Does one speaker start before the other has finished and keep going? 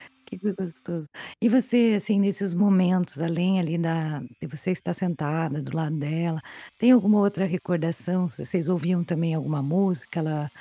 No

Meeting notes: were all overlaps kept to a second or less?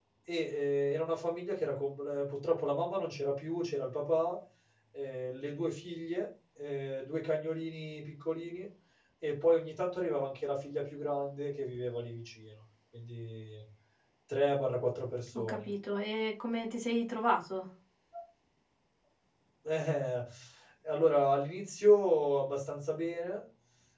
Yes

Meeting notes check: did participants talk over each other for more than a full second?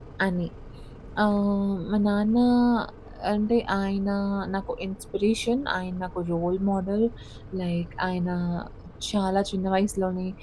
No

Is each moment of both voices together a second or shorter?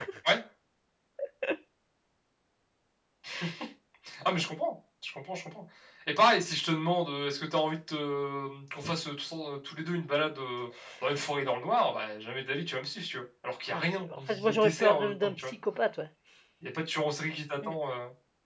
No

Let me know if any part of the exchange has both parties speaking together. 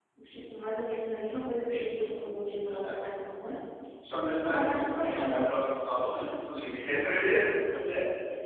Yes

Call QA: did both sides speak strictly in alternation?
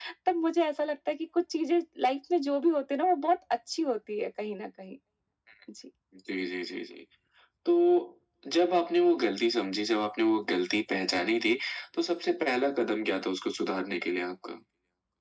Yes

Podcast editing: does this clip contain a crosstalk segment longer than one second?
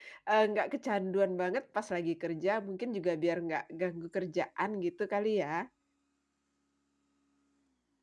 No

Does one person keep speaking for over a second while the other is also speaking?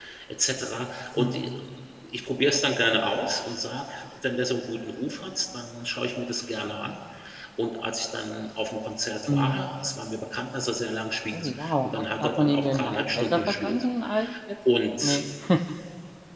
Yes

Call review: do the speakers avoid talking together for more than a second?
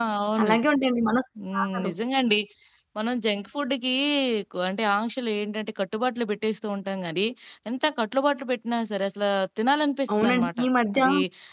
Yes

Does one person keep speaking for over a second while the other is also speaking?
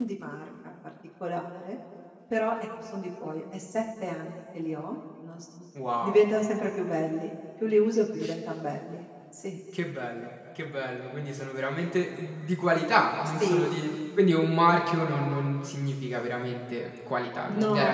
No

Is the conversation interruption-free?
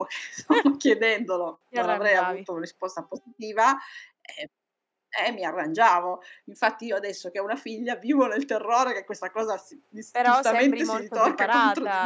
No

